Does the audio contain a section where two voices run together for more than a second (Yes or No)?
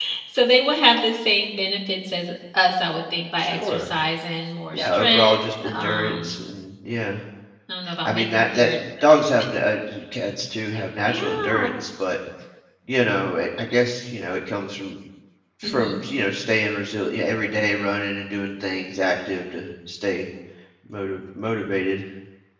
Yes